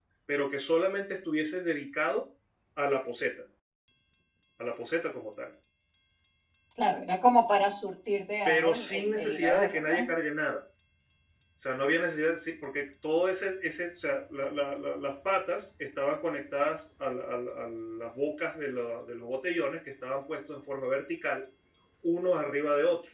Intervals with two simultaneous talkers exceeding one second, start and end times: 8.4-10.1

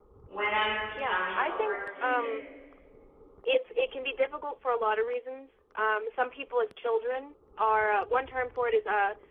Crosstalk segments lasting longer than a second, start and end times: 1.0-2.3

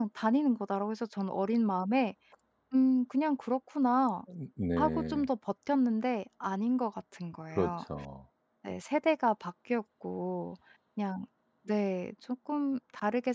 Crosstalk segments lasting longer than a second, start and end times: none

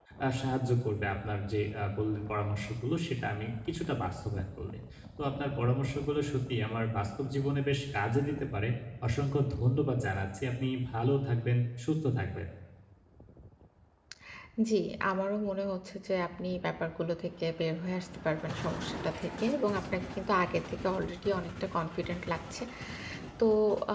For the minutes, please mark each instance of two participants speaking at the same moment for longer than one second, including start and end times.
none

